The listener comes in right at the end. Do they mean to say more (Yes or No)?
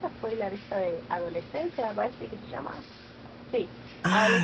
No